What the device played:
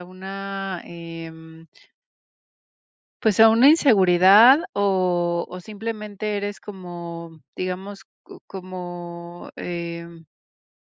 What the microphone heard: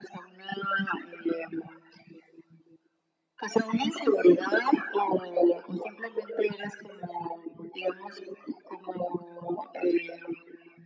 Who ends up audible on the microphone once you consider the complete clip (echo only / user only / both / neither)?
echo only